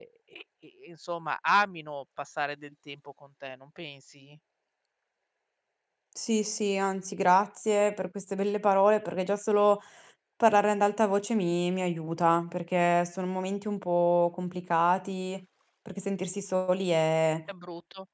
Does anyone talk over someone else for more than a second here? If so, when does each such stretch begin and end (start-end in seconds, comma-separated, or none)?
none